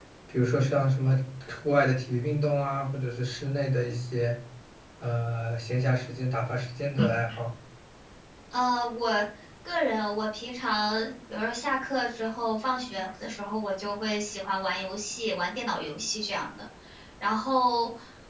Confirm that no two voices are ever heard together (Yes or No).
Yes